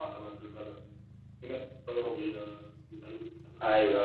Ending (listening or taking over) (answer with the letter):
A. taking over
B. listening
A